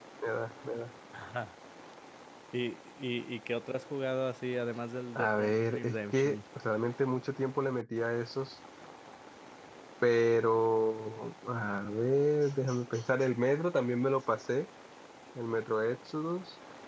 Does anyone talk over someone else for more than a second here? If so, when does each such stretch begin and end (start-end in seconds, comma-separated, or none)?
5.2-6.4